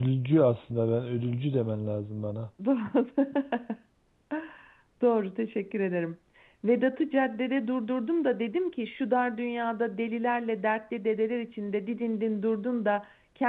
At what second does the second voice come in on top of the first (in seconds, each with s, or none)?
none